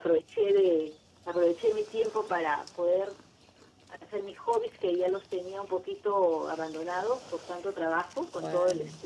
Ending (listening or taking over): listening